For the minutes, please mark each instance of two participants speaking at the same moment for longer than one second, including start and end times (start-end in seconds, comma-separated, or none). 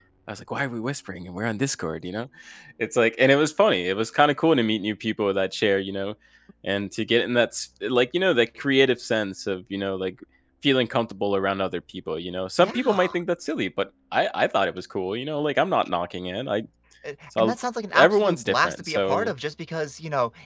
18.0-19.3